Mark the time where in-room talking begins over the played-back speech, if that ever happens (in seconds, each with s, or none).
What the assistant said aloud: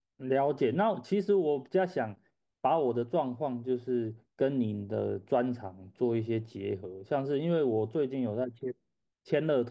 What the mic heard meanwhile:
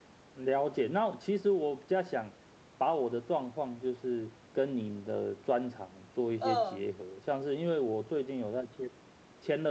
6.4 s